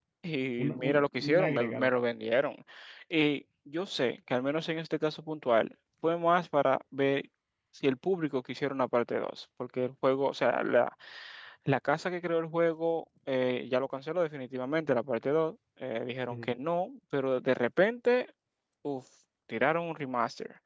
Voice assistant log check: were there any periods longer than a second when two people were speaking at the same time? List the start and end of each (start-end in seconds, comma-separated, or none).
0.6-1.9